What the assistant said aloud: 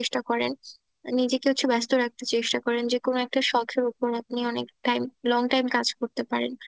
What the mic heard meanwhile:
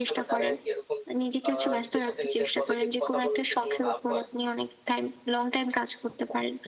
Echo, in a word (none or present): present